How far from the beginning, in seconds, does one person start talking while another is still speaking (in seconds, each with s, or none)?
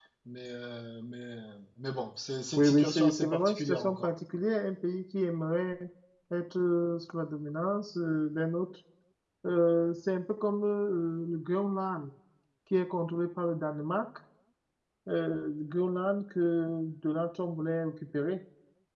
2.6 s